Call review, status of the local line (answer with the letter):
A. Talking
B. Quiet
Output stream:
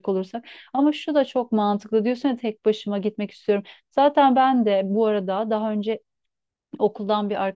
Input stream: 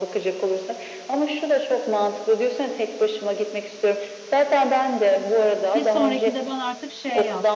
A